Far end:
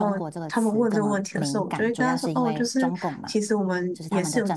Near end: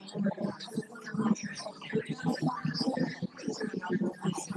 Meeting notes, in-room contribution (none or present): none